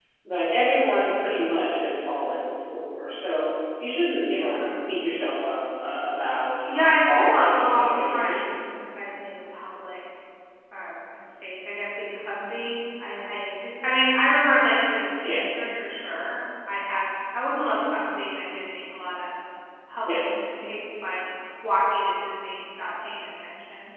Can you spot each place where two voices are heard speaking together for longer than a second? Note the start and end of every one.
6.7-8.6

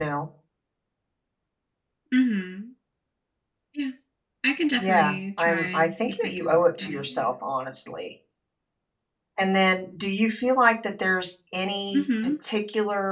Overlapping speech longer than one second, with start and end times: 4.7-7.0

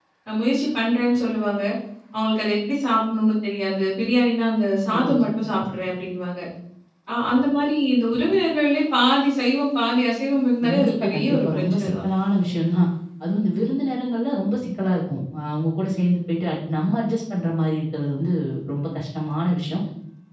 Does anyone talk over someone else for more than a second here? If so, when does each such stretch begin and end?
10.6-11.9

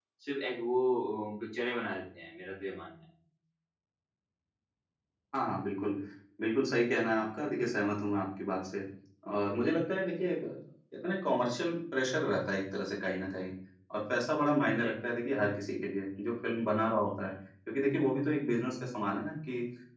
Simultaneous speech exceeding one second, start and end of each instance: none

